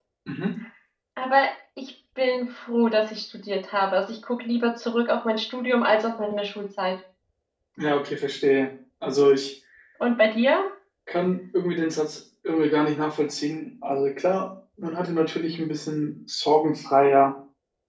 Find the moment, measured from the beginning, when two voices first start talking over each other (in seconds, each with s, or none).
none